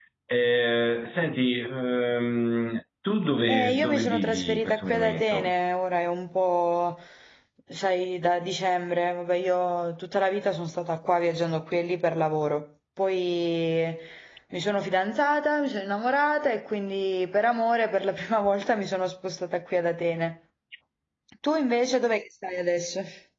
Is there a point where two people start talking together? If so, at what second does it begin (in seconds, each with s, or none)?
3.5 s